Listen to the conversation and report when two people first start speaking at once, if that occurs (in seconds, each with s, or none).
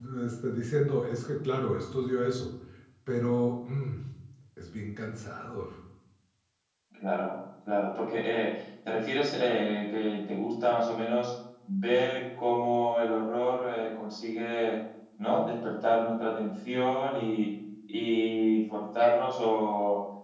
none